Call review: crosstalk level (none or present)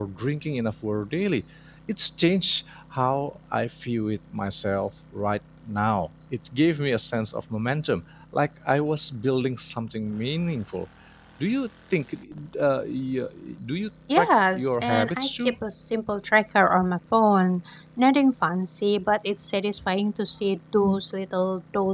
present